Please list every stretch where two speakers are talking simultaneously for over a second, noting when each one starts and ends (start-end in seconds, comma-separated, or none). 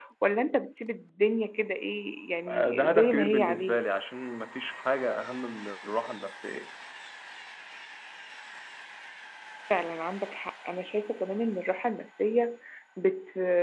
2.5-3.8